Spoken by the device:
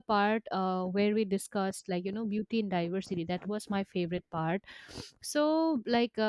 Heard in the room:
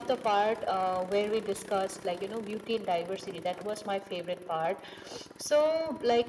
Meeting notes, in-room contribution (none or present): none